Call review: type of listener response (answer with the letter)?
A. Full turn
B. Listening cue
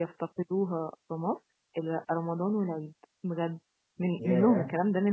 B